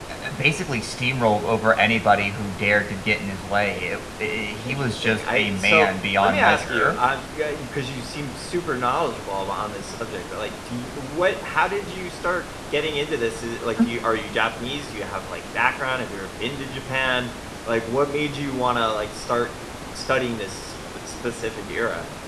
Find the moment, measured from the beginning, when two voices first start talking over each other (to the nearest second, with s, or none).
5 s